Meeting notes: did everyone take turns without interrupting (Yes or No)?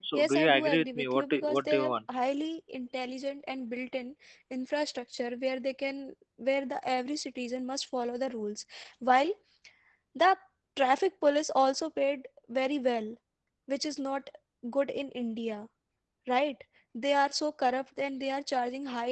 No